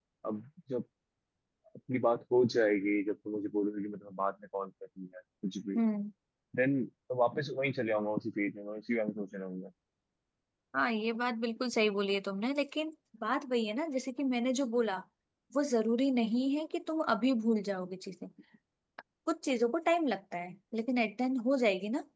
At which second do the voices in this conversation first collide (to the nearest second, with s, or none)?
none